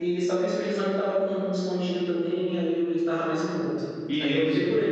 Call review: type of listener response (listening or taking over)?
listening